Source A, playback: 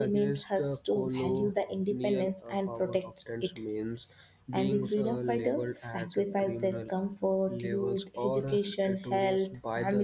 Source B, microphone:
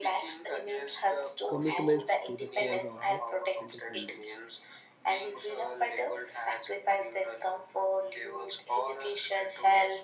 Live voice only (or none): commitments to the cause of the independence.